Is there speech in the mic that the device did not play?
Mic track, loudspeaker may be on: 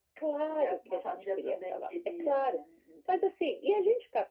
No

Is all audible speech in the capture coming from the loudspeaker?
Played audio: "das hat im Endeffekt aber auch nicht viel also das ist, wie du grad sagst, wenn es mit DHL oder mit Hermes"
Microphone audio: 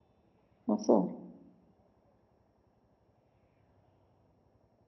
No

